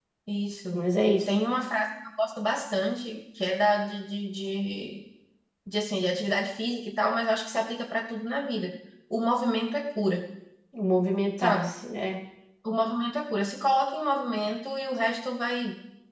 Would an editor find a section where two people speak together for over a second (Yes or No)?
No